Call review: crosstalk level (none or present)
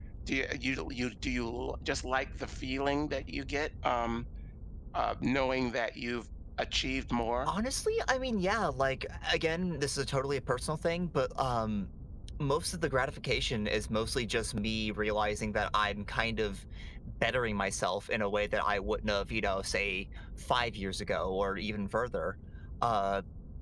none